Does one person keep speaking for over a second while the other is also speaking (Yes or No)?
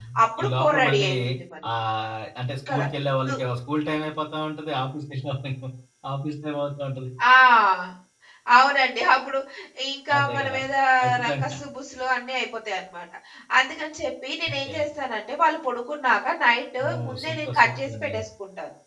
Yes